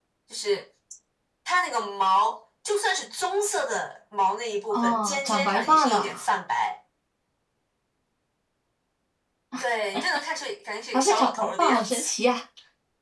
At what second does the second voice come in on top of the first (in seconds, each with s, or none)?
4.7 s